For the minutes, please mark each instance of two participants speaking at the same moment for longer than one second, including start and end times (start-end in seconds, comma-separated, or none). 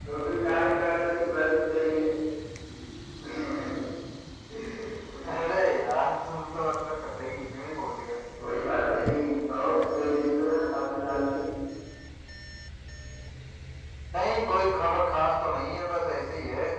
none